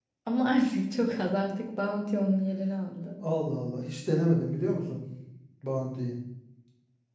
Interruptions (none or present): none